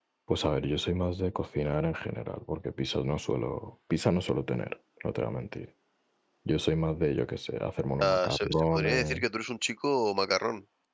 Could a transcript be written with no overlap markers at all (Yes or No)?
No